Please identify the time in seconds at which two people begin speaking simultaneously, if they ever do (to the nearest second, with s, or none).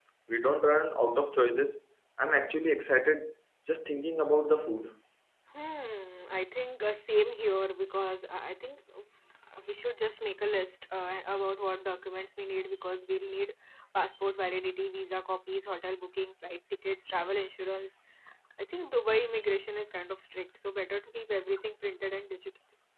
none